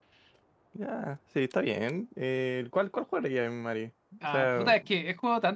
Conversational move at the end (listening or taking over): taking over